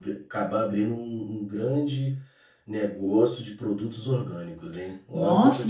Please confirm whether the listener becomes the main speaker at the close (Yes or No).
Yes